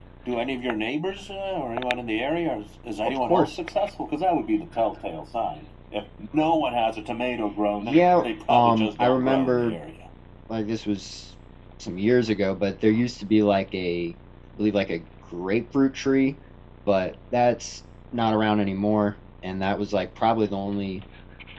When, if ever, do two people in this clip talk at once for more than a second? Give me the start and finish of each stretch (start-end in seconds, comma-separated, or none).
7.8-9.8